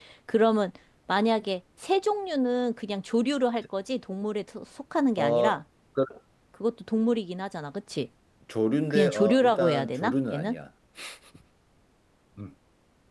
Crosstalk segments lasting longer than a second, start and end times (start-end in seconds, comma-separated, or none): 8.9-10.6